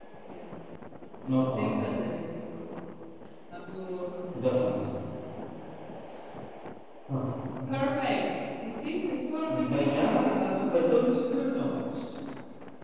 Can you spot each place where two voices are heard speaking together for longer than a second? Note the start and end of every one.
9.5-11.1

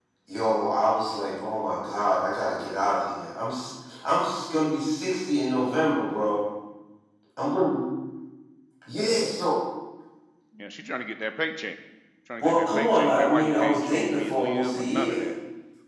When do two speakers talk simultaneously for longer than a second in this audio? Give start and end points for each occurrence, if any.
12.4-15.3

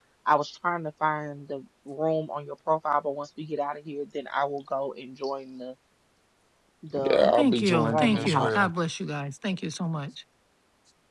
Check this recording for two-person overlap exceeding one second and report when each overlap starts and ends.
7.0-8.7

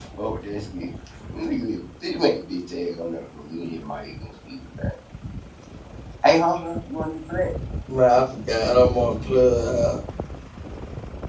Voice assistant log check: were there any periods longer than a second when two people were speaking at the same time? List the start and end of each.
none

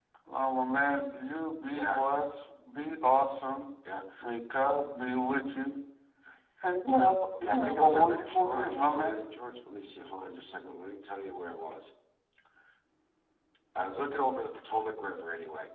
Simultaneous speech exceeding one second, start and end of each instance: 7.4-9.2

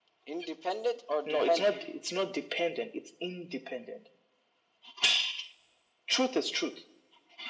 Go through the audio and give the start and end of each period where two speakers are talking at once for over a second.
none

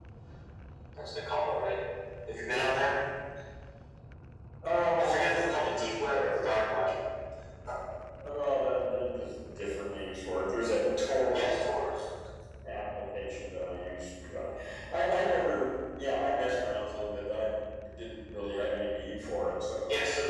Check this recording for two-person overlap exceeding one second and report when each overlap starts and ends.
5.0-6.5

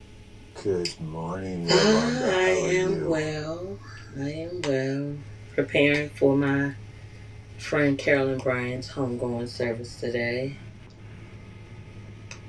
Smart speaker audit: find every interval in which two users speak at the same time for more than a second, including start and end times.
1.7-3.1

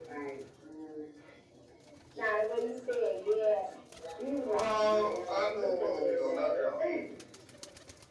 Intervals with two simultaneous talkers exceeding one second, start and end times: 4.5-6.6

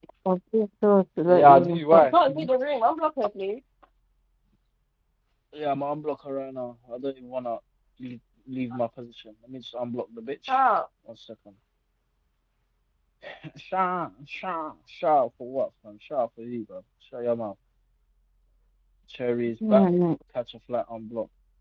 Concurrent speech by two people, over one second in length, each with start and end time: 1.3-2.5

